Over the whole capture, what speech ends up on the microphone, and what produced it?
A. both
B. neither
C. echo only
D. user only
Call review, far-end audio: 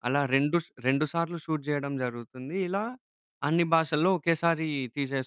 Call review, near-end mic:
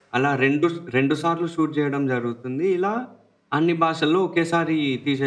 C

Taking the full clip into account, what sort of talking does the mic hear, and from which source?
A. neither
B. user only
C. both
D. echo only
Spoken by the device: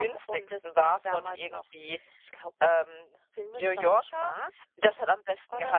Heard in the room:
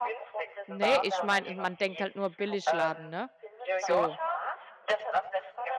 C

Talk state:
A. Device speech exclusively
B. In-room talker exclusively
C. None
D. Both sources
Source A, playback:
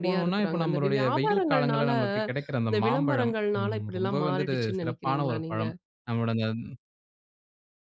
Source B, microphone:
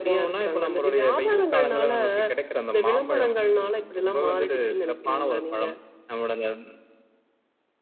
A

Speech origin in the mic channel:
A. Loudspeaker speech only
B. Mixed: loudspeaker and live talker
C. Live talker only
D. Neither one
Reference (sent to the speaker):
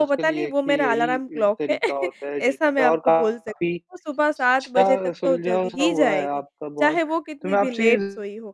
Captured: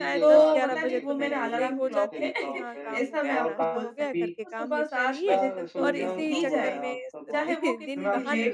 B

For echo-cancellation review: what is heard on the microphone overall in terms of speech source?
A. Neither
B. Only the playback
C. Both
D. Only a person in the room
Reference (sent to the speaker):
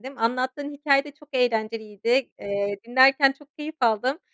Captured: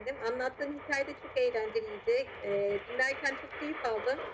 B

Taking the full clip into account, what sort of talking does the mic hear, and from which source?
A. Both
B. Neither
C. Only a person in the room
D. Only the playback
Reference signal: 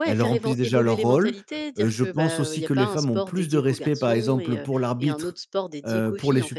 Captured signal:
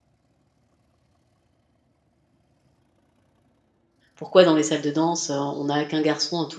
C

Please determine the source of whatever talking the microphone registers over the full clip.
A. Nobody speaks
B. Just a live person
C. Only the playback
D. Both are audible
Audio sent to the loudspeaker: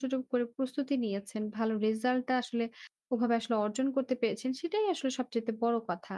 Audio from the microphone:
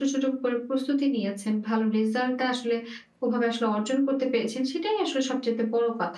C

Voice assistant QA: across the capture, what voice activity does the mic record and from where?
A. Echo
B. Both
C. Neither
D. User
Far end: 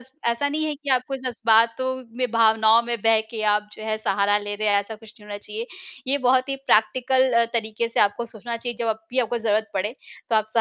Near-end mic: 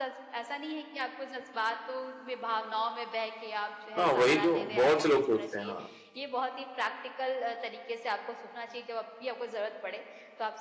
B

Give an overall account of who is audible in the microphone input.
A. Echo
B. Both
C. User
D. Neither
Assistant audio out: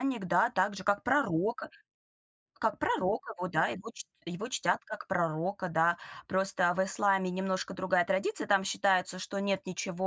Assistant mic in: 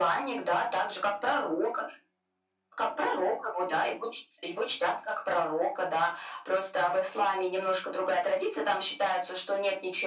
A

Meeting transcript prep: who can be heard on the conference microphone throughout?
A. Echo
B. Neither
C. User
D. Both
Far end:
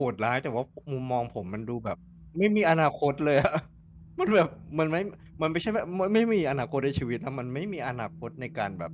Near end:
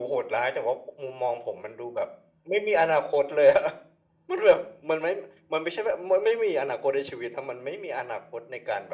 A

